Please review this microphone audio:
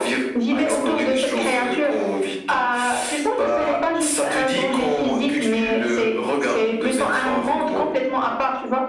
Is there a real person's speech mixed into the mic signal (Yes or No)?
No